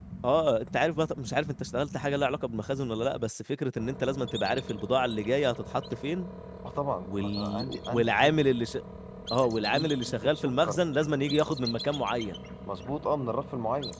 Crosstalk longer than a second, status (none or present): present